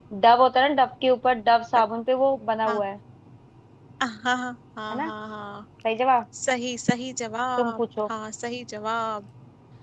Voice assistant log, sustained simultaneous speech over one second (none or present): none